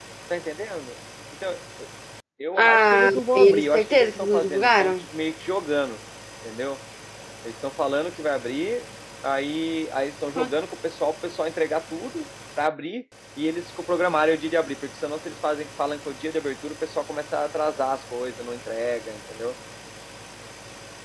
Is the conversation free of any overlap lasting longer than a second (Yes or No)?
No